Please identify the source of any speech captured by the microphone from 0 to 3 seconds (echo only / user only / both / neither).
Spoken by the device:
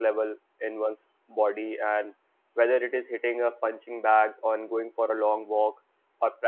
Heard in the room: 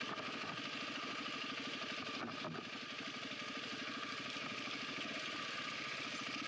neither